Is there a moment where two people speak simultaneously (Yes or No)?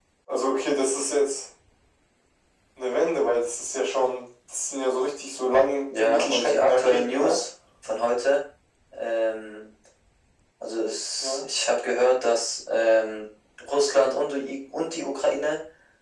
Yes